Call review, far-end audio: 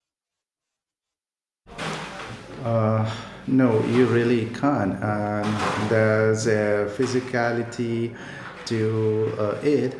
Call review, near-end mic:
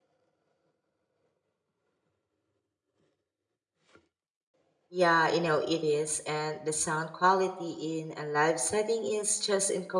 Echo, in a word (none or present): none